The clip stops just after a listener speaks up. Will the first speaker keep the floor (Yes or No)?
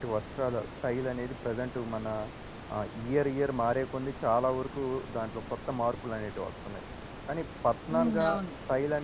Yes